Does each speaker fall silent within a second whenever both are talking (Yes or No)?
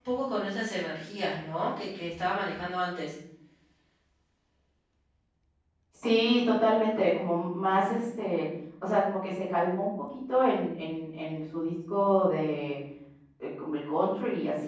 Yes